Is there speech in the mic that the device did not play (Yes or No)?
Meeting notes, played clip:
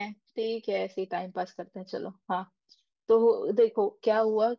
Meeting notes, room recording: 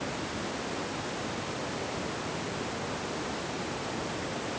No